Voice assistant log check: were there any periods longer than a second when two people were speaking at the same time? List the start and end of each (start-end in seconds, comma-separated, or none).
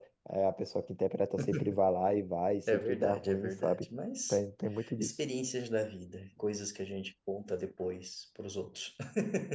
2.7-3.9